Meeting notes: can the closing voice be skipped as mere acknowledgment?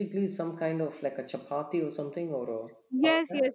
No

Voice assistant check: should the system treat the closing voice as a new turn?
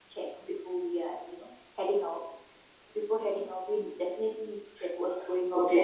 Yes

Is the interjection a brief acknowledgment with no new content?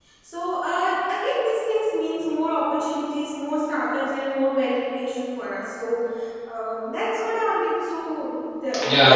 No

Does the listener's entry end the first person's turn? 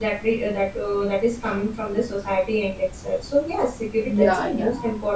No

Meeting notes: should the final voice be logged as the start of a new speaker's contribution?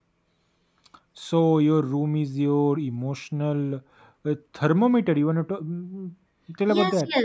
Yes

